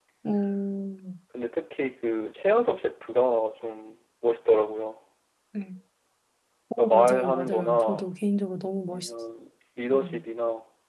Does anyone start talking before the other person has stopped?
Yes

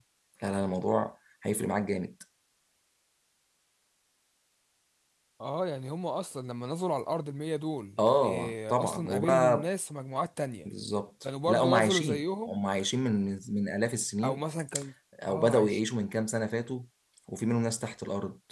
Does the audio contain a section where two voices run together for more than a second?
Yes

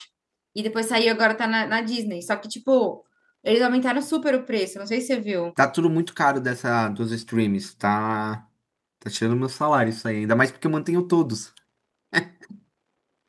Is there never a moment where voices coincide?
Yes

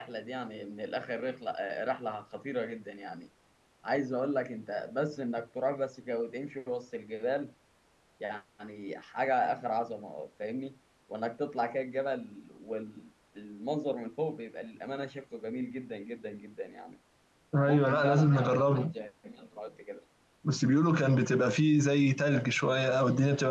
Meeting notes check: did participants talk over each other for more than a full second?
Yes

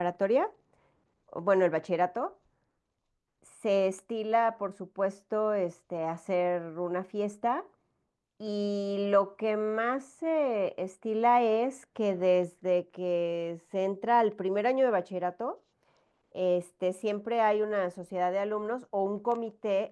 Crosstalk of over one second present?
No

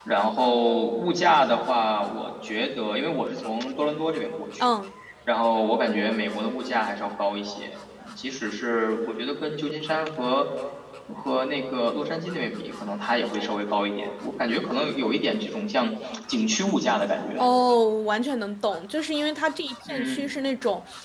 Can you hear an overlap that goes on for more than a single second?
No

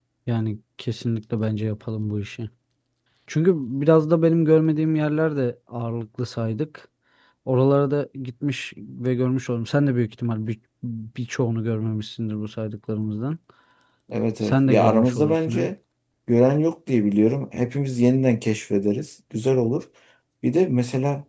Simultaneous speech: Yes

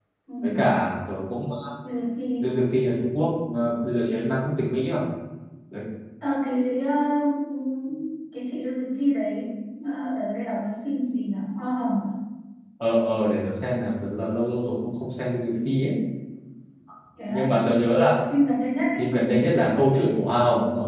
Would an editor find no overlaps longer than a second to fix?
Yes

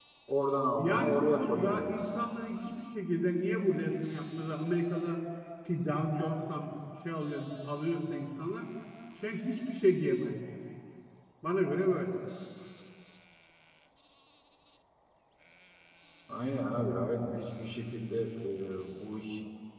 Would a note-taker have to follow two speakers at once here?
Yes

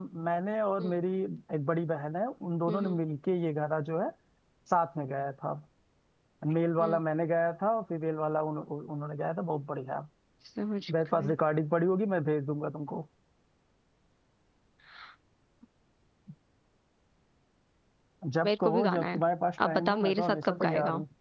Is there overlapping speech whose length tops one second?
Yes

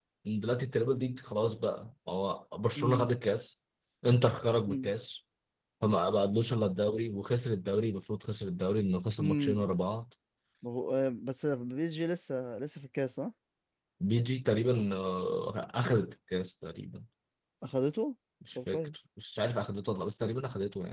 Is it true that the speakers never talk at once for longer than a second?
Yes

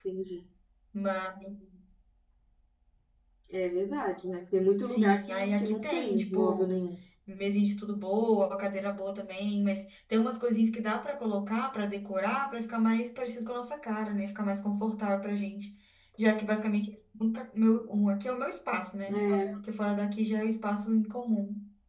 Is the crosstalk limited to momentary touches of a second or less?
No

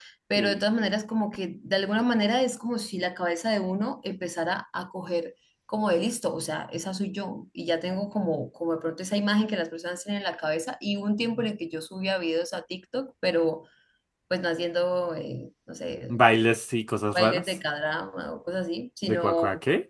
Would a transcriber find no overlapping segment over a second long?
Yes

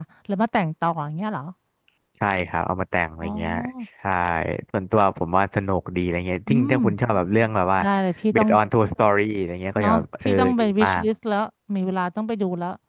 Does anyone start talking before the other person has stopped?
Yes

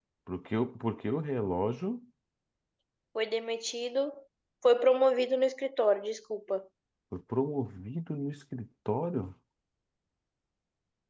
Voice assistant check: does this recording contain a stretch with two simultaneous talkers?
No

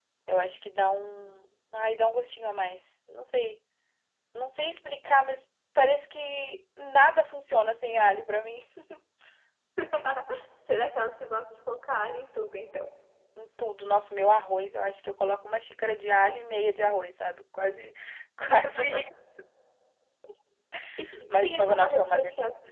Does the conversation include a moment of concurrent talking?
Yes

